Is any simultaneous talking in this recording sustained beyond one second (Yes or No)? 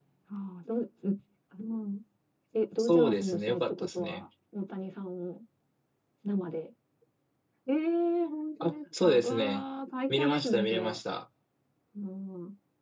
Yes